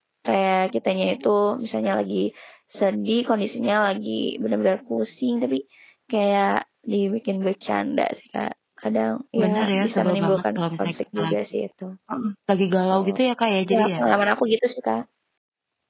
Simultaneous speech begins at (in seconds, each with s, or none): 9.4 s